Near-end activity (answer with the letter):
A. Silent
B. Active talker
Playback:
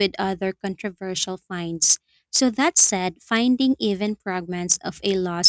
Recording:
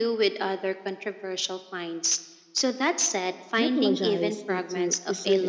B